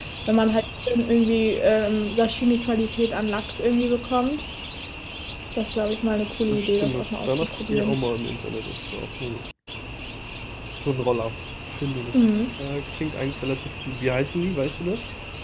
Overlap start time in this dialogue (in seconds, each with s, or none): 6.5 s